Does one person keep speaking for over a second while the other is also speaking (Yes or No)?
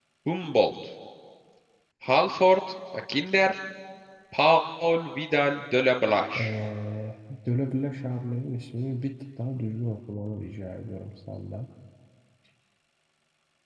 No